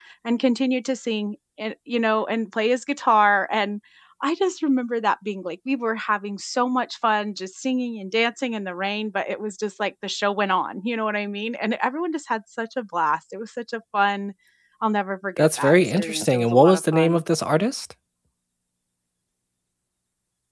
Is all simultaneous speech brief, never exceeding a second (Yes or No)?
No